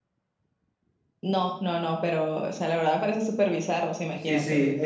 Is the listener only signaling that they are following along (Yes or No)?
No